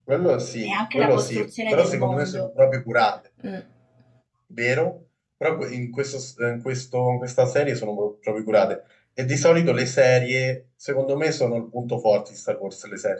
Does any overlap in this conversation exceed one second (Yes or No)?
Yes